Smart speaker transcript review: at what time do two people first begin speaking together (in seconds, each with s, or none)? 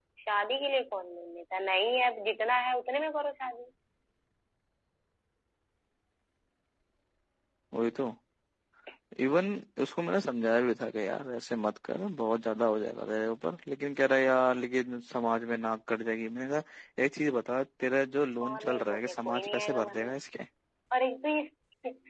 18.4 s